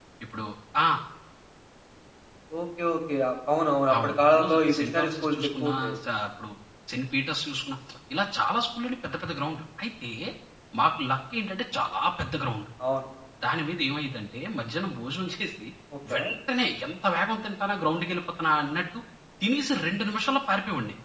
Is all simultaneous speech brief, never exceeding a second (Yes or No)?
No